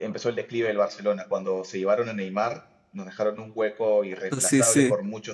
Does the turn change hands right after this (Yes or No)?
No